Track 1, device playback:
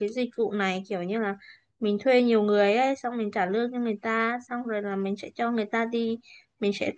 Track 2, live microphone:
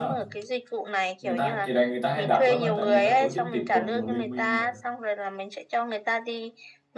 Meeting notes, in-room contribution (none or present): present